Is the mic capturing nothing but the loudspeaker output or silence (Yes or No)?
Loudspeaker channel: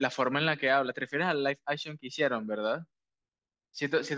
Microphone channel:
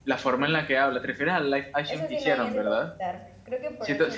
No